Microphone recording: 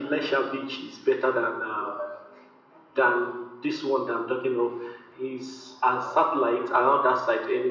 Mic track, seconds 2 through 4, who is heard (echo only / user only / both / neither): echo only